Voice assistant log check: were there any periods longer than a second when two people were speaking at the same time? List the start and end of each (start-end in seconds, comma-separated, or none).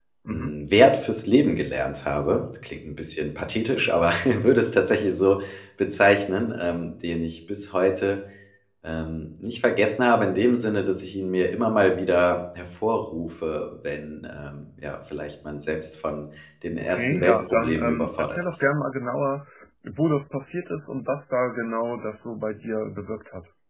16.8-18.6